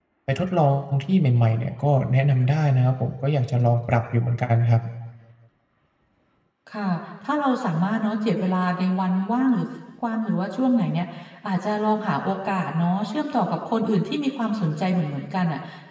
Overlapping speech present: No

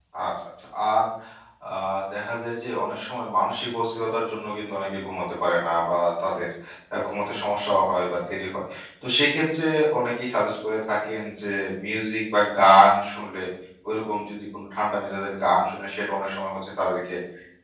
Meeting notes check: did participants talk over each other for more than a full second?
No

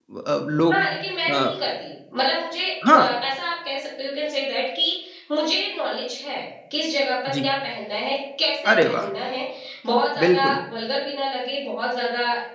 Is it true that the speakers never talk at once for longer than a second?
Yes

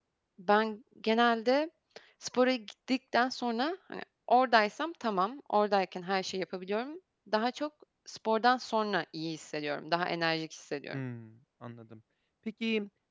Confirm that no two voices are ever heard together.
Yes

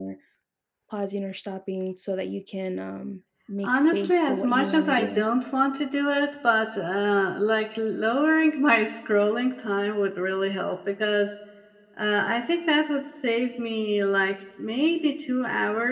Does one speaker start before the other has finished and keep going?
Yes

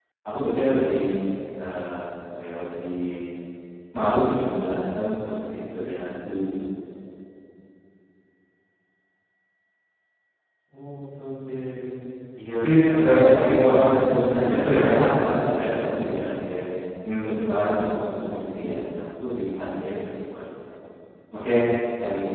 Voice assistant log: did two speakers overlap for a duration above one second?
Yes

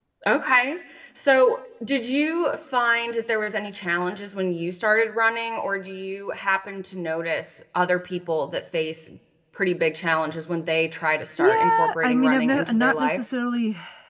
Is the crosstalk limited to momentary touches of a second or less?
No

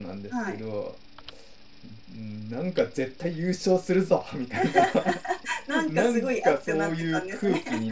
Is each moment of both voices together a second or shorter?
No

